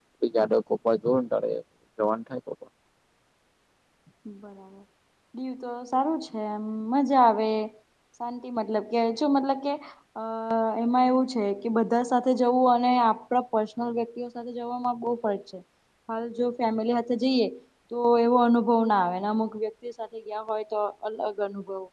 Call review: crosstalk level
none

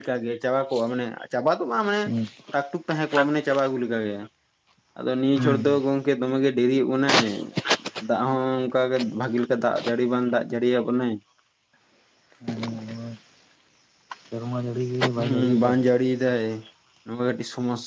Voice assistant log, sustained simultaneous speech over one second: none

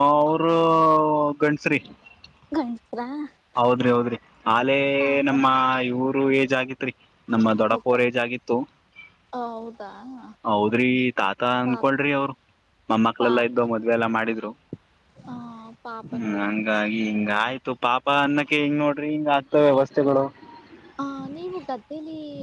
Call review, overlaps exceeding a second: none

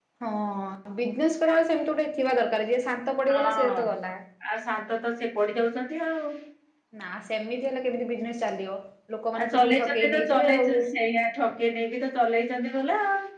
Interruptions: present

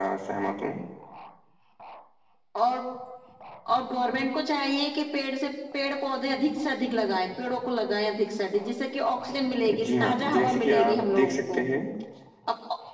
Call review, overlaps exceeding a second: present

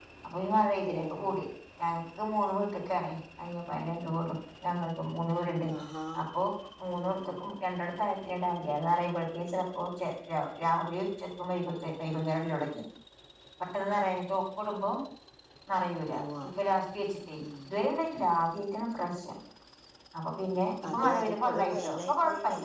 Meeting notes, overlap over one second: present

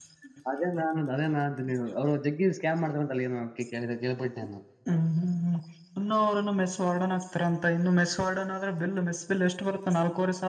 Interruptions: none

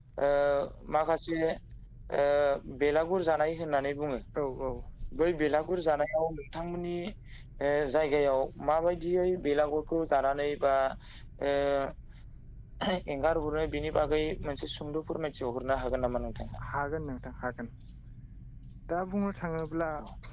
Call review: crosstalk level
none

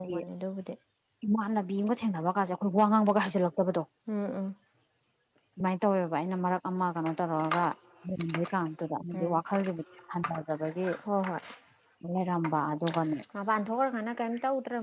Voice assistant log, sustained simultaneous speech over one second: none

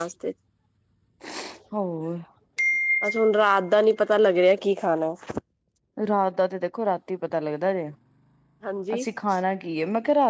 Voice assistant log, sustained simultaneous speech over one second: none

